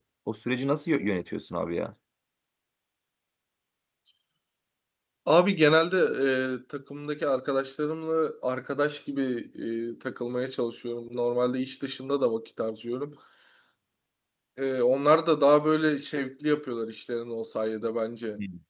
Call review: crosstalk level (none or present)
none